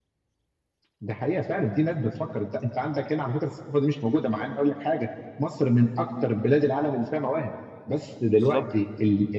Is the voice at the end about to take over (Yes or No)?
No